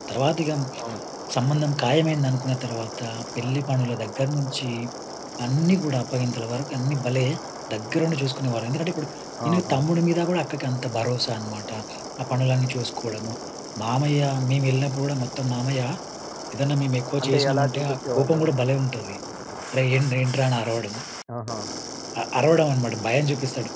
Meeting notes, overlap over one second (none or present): present